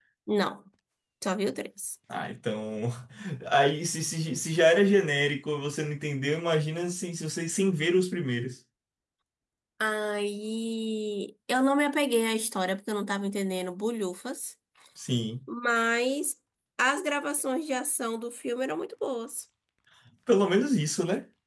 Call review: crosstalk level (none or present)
none